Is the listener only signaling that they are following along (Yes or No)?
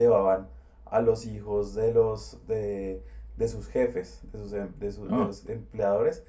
Yes